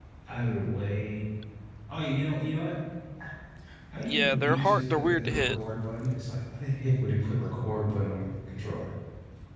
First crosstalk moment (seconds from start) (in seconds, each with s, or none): 4.0 s